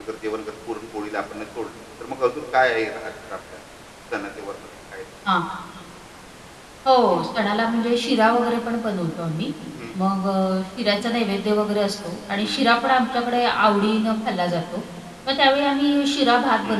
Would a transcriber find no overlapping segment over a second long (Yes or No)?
Yes